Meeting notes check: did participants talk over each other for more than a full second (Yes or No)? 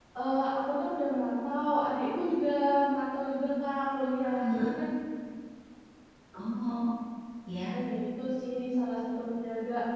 No